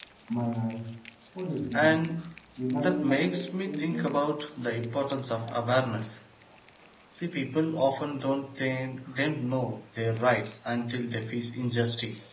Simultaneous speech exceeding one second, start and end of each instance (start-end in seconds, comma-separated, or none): 2.7-4.1